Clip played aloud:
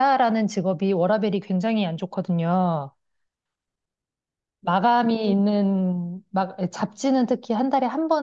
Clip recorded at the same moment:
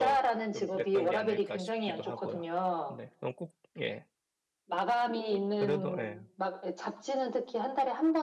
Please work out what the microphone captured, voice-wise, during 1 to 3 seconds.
both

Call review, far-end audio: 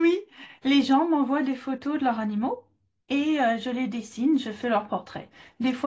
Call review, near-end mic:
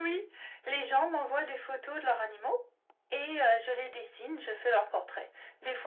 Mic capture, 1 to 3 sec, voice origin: echo only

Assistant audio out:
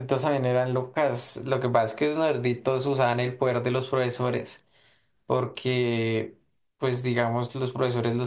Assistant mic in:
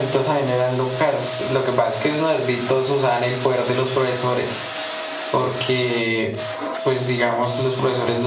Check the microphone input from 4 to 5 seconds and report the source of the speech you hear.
echo only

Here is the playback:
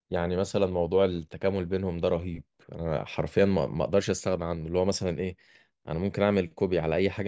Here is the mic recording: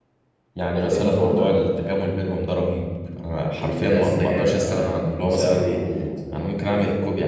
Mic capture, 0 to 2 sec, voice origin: both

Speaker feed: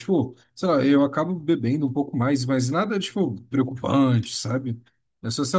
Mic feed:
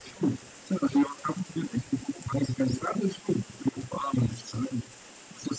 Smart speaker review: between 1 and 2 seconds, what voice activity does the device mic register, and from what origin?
echo only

